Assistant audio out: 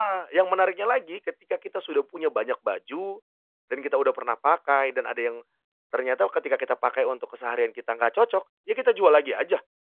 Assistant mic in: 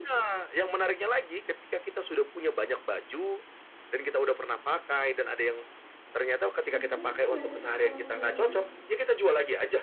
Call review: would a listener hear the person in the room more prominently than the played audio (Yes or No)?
No